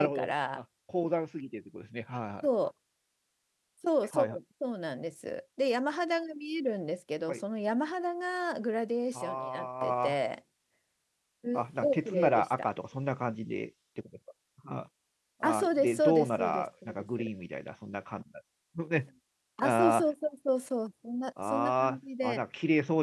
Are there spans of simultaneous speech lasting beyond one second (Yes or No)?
Yes